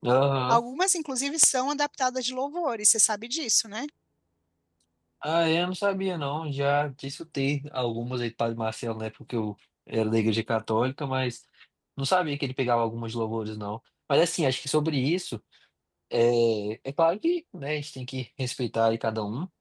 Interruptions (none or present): none